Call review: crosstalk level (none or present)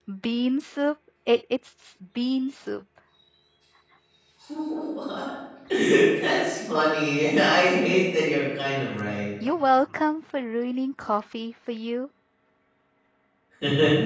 none